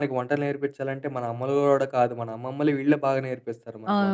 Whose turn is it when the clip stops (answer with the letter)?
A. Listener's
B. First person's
A